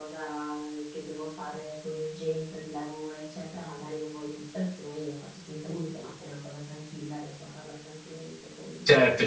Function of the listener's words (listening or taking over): taking over